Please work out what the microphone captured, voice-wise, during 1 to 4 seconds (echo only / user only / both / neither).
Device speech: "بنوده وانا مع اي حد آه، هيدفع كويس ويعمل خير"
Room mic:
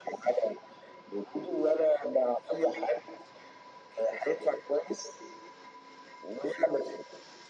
echo only